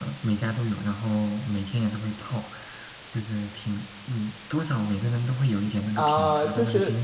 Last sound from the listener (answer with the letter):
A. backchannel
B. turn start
B